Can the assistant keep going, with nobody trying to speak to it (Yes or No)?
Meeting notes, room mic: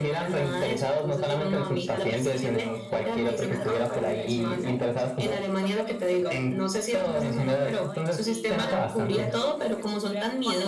No